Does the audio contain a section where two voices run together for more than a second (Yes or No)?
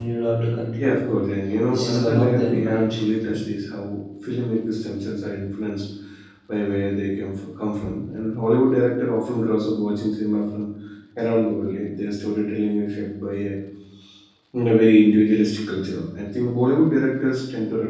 Yes